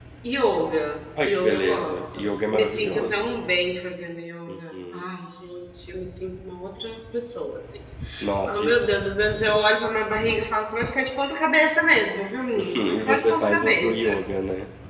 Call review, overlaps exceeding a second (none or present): present